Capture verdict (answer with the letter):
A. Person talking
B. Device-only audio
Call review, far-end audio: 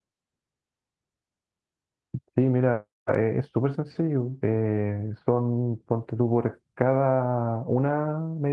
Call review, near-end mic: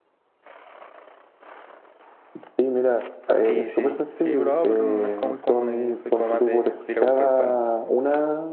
A